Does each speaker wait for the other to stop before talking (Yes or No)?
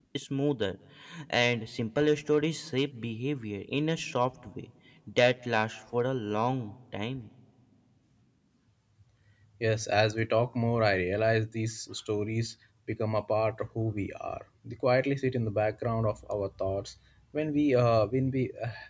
Yes